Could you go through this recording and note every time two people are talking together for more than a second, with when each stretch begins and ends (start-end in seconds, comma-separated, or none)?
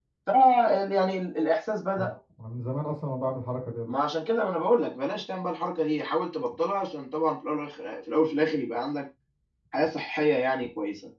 none